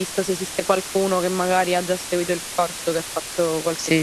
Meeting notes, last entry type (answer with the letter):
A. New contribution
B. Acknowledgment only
A